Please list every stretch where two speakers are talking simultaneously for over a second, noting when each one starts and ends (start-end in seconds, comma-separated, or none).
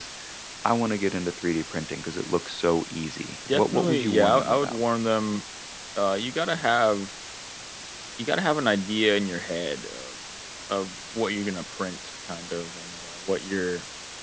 3.5-4.8